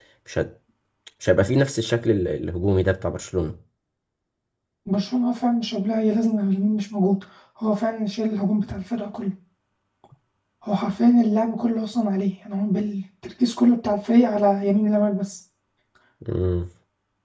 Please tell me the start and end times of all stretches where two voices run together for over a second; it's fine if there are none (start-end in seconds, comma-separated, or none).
none